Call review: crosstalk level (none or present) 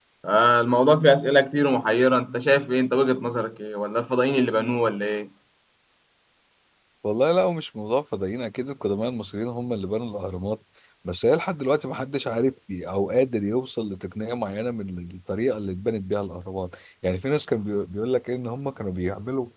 none